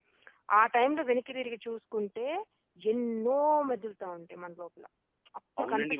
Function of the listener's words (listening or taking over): taking over